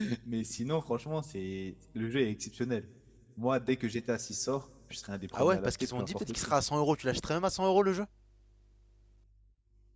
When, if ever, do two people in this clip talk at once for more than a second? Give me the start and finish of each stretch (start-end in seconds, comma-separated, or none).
5.3-6.5